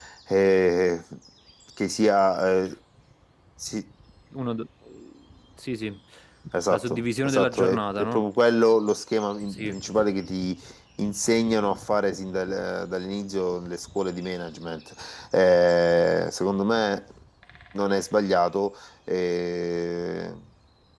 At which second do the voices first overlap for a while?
6.7 s

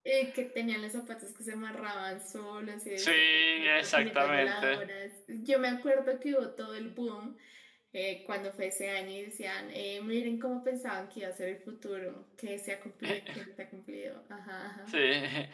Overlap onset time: 3.0 s

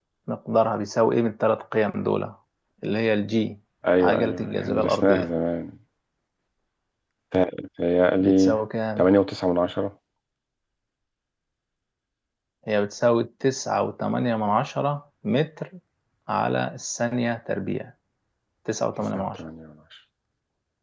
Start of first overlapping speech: 4.0 s

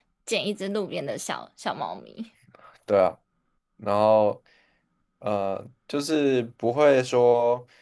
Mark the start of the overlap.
none

